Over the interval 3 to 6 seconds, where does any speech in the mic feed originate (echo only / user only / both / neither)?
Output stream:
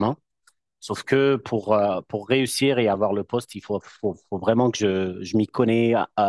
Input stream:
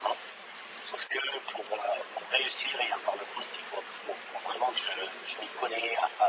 echo only